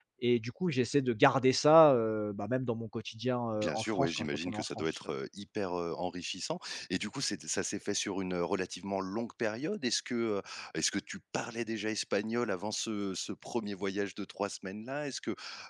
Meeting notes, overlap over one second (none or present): present